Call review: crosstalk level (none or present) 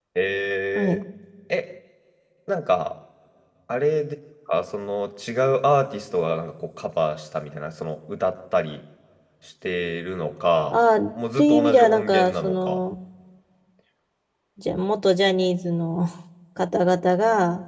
present